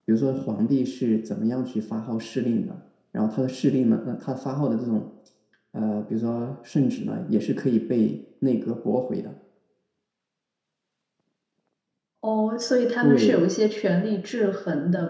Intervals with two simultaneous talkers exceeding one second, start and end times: none

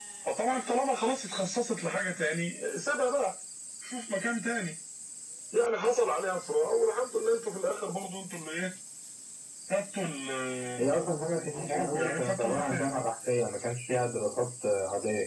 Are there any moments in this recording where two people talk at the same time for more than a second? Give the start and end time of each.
10.8-12.9

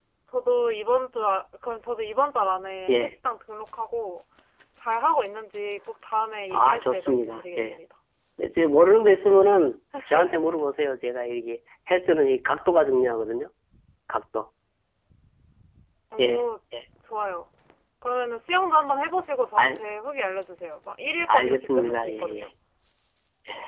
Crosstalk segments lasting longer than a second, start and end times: 6.5-7.8, 21.3-22.5

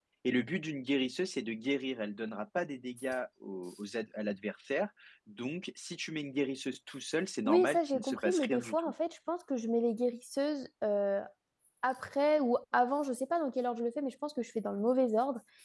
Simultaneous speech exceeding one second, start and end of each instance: 7.4-8.9

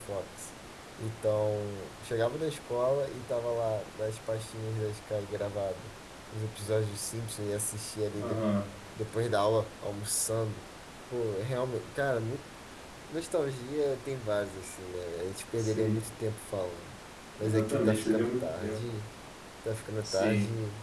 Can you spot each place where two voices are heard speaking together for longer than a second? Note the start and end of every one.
17.4-18.8

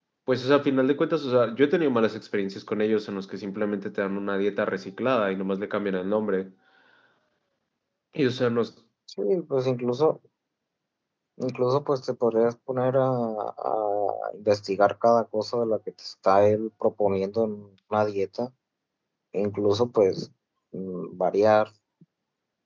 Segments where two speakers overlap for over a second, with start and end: none

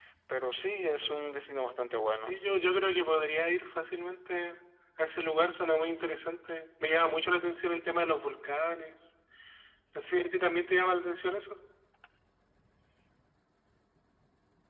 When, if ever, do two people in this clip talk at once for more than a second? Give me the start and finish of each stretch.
none

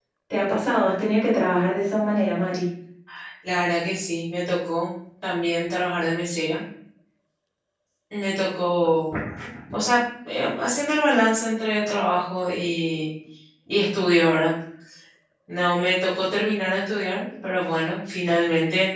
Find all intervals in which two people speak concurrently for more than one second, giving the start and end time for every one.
none

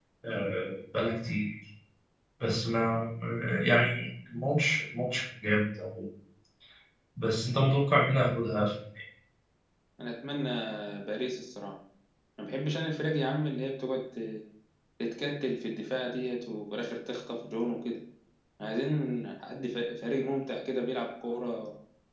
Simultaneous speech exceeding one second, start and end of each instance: none

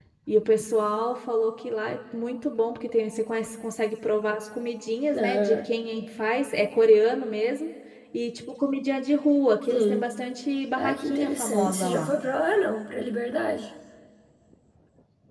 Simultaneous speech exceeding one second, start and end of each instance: 10.8-12.1

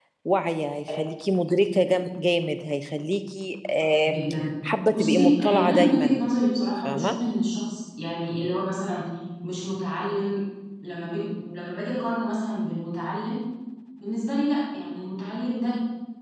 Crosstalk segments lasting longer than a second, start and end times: 4.9-6.2

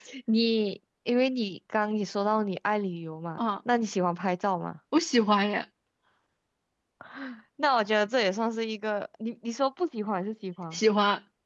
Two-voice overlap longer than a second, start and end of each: none

